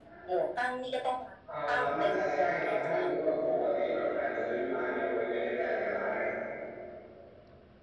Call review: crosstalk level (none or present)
present